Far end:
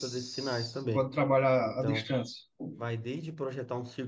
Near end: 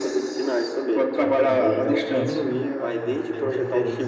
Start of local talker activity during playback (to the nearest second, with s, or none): 1 s